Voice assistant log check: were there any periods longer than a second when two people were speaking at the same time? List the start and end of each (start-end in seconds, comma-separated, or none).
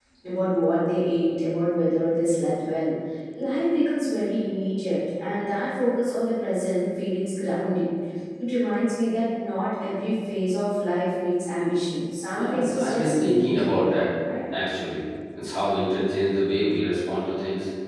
12.3-14.0